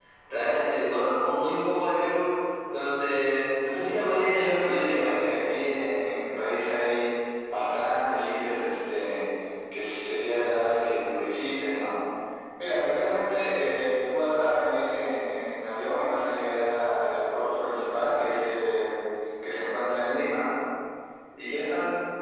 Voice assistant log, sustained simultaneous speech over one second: none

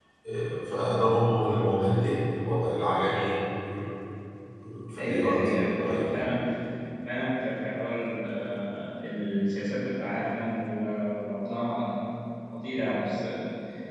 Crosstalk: present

